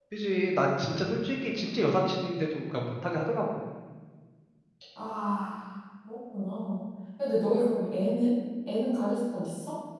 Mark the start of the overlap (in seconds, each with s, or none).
none